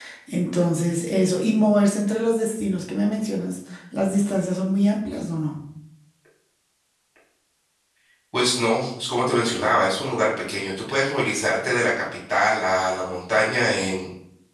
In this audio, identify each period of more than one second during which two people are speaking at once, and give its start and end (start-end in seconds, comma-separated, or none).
none